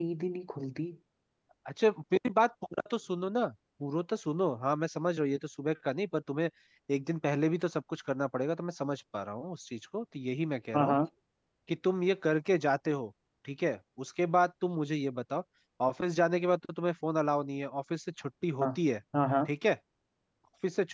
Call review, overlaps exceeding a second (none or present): none